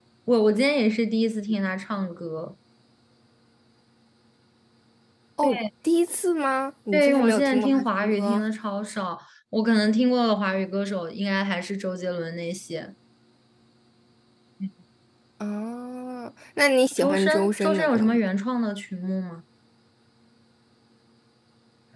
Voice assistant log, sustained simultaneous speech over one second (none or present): present